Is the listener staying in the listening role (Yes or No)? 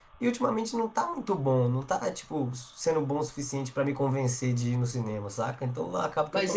No